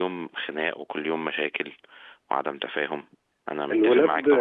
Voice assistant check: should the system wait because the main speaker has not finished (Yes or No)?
No